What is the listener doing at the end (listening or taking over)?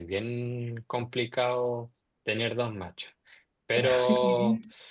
listening